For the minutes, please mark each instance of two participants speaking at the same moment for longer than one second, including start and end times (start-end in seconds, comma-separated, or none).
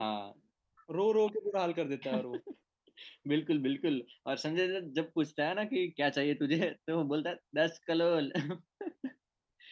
none